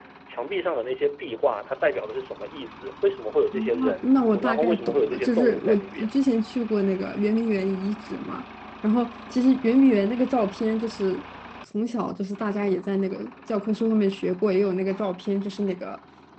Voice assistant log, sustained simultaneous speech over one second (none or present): present